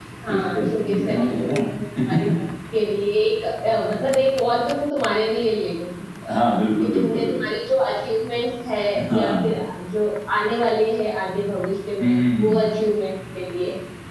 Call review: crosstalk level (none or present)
present